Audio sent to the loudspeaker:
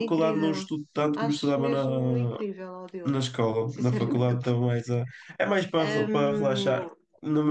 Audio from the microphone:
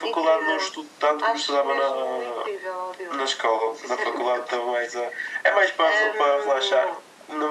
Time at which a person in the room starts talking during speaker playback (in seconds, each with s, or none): none